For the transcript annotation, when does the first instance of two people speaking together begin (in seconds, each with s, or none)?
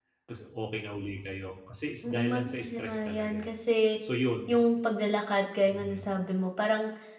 2.0 s